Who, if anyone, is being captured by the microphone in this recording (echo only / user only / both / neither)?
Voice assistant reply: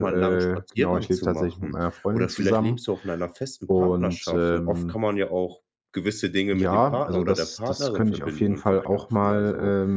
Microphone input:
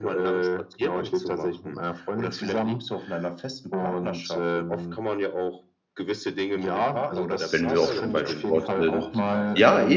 both